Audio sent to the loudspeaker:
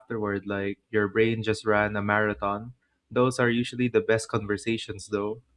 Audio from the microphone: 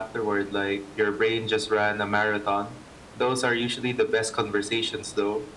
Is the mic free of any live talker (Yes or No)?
Yes